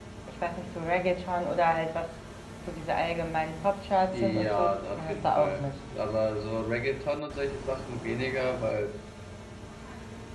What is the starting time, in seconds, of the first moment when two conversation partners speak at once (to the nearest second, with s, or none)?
4 s